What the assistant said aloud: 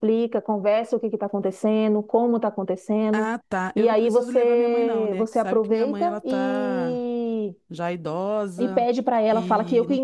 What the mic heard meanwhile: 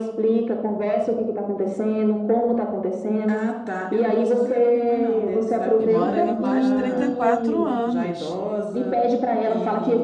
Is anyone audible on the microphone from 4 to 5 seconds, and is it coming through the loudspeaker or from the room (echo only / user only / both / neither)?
echo only